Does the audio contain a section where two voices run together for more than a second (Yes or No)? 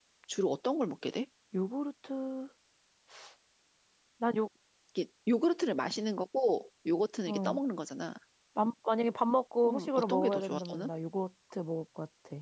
Yes